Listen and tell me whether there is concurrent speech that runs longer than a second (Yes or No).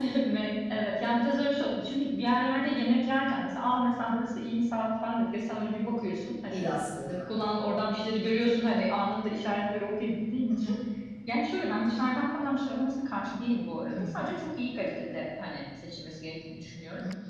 No